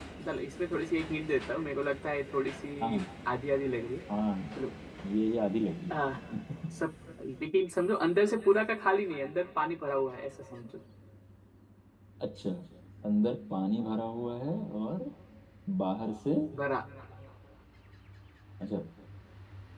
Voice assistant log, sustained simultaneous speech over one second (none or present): none